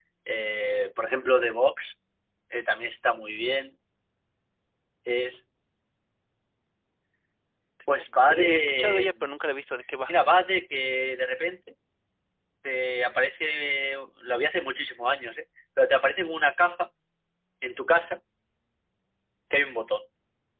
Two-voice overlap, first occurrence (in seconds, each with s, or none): 7.9 s